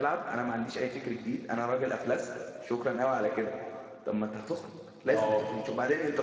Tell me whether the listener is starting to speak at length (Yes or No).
No